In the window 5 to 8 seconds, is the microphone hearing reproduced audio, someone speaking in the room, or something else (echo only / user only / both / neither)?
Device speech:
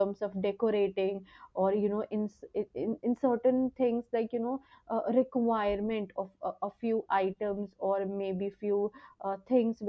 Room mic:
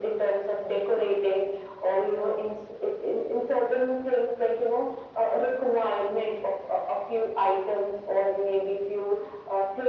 echo only